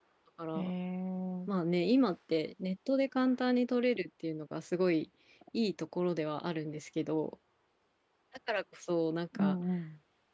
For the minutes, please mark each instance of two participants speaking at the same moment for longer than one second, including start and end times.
none

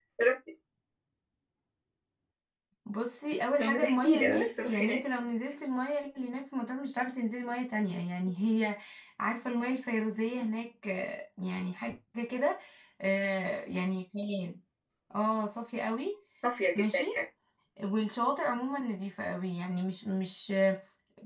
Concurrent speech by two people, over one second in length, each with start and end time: 3.6-5.0

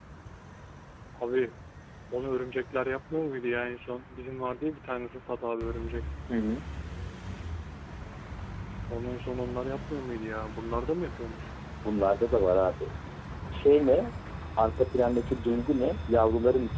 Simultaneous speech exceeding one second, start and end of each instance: none

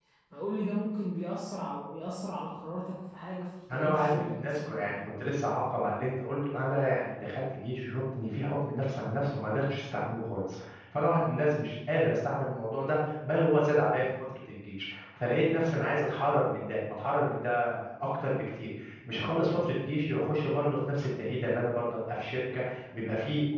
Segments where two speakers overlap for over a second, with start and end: 3.7-5.1

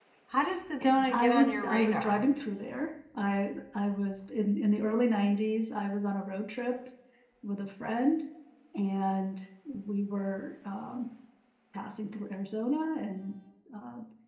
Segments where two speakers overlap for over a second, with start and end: 0.8-2.2

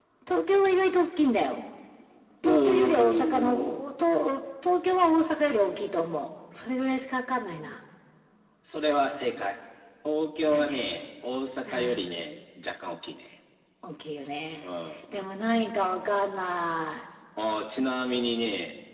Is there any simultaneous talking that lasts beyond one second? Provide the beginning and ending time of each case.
2.4-3.8

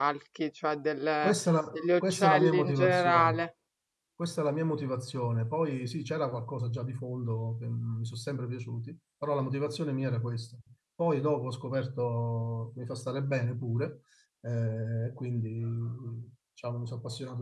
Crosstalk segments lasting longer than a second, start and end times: 1.7-3.4

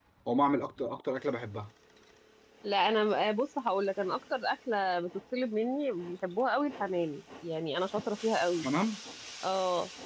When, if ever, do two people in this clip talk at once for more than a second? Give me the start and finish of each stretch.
none

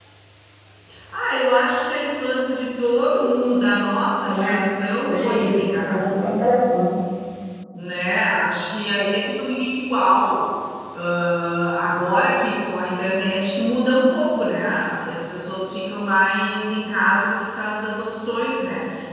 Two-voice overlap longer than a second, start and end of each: 5.1-6.3

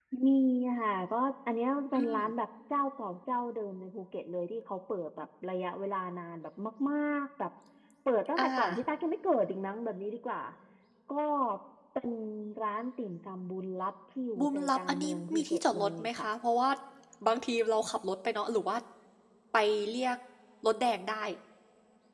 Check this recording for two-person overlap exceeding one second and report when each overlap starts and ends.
14.4-16.3

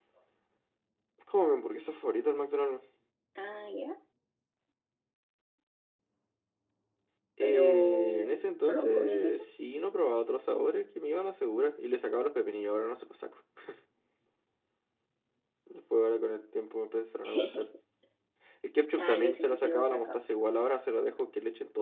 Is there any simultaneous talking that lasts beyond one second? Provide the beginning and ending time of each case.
7.4-9.4, 19.0-20.2

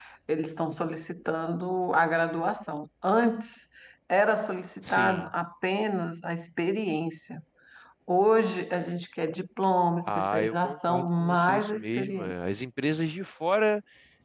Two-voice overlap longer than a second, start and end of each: 10.1-12.4

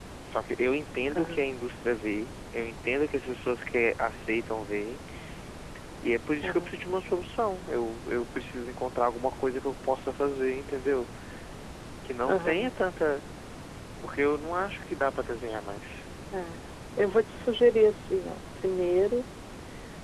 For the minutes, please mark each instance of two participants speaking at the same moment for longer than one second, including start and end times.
none

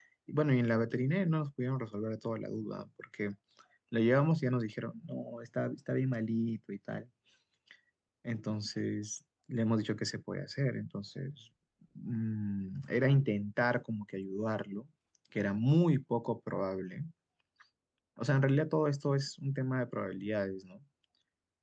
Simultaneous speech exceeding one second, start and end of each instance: none

